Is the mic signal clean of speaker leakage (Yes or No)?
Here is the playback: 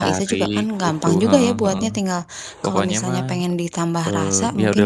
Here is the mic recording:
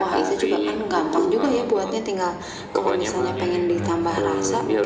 No